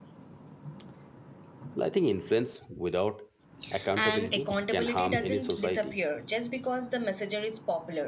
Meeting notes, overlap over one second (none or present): present